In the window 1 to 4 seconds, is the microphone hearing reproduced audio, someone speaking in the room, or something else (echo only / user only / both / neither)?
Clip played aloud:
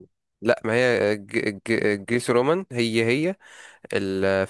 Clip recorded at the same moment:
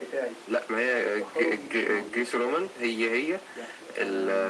both